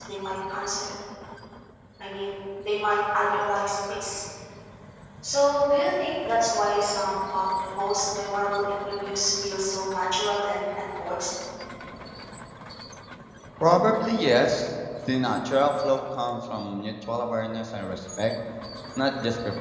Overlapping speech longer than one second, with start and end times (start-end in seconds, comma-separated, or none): none